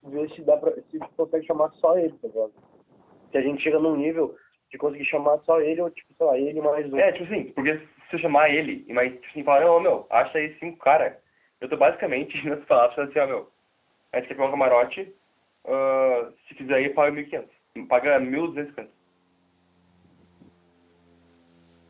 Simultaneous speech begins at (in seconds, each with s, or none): none